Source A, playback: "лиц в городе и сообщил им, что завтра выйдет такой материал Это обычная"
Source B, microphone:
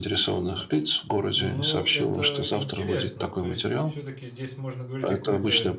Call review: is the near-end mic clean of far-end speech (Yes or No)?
No